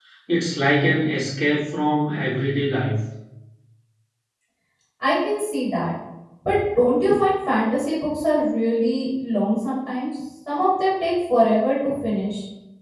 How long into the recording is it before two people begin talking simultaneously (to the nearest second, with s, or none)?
none